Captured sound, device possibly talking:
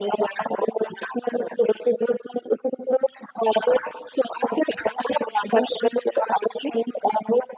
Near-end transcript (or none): none